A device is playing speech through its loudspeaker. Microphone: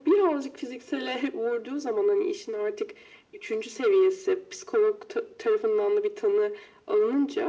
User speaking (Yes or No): No